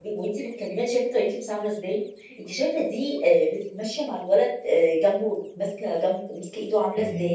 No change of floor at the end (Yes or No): No